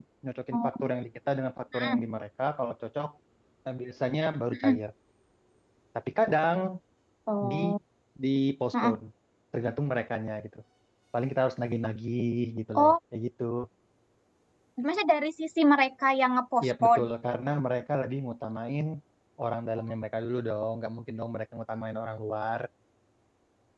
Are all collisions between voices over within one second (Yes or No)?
Yes